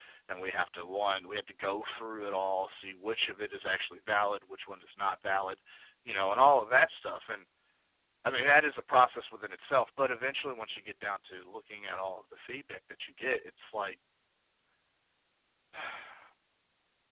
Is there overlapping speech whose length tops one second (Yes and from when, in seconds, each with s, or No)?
No